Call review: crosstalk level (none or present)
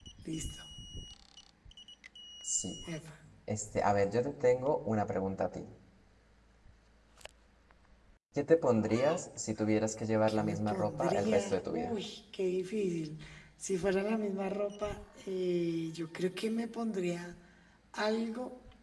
present